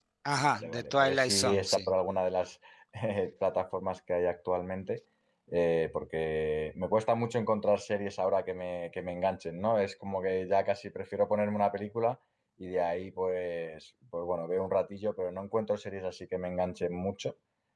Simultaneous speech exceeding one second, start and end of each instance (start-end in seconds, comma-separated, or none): 0.5-1.9